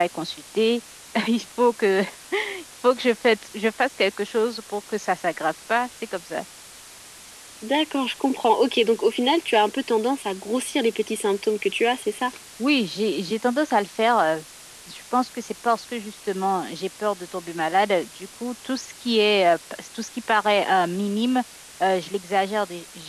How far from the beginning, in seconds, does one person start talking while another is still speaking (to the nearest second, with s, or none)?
none